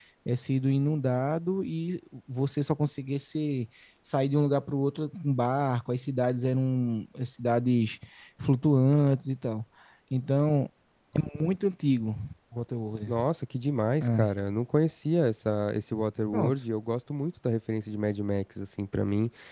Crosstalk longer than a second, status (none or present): none